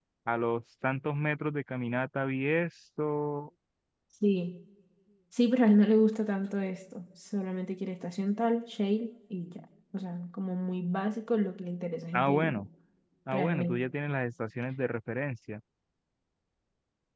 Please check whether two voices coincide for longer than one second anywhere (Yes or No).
No